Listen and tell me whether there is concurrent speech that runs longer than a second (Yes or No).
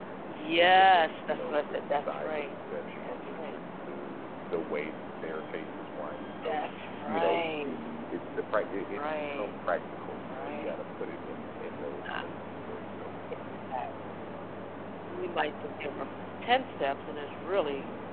Yes